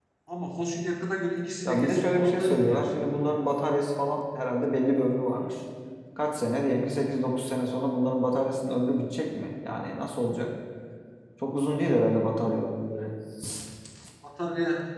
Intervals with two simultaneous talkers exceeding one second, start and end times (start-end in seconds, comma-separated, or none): 1.6-2.9